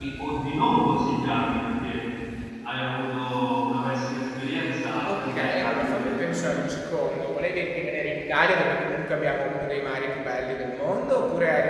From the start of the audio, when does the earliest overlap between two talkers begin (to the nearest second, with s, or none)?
5 s